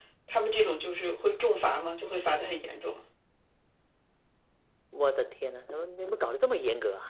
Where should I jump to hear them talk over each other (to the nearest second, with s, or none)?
none